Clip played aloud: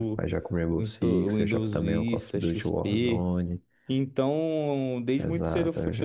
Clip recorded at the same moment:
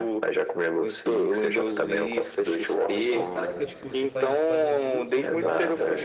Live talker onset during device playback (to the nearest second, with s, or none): 3 s